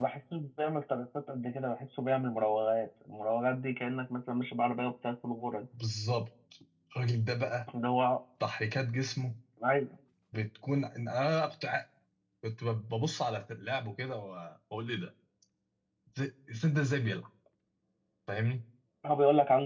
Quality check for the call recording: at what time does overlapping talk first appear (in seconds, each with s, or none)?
none